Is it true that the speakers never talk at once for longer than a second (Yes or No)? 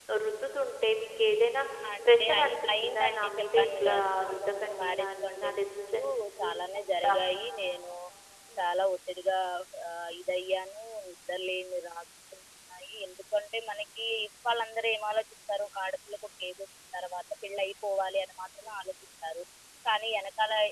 No